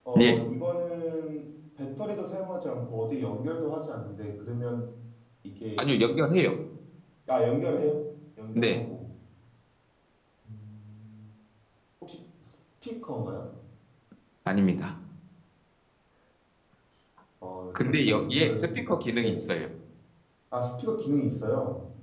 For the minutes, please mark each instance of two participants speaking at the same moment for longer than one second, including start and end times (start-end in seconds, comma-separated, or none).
17.9-19.4